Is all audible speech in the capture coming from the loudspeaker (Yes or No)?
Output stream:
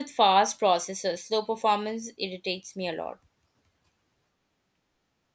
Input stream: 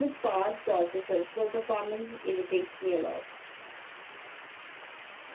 Yes